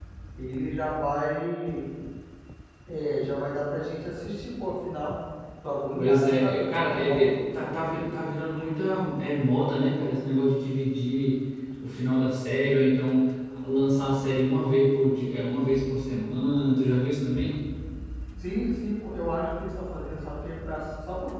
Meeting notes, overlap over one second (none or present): present